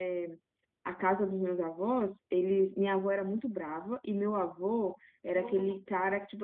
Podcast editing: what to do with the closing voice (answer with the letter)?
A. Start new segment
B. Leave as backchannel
B